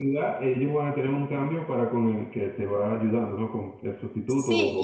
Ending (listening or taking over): taking over